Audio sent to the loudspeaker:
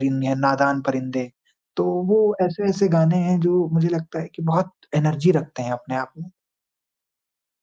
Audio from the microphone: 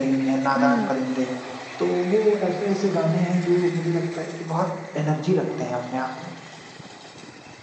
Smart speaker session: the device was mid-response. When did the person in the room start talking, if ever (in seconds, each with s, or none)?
0.6 s